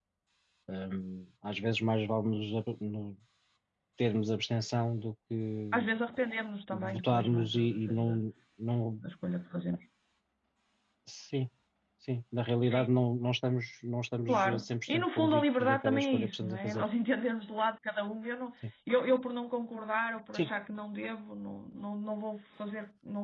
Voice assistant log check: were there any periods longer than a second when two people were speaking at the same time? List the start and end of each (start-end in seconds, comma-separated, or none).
6.7-8.2, 14.3-16.9